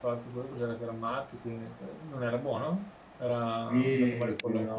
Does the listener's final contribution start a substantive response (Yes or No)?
Yes